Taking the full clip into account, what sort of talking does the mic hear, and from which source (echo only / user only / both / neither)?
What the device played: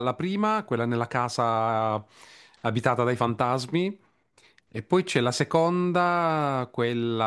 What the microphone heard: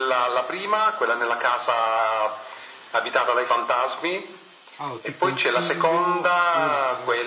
both